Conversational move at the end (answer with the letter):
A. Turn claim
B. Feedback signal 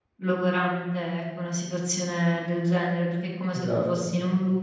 B